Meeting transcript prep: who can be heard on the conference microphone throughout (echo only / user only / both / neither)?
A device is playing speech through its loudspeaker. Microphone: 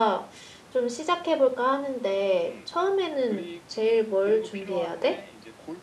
both